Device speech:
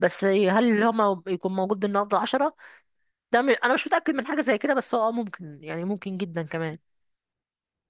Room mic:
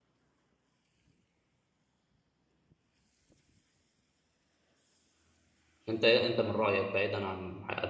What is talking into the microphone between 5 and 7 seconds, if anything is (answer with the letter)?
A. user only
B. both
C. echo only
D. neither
A